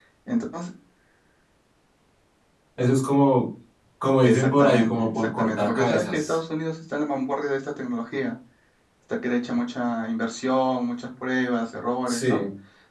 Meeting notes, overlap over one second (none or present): present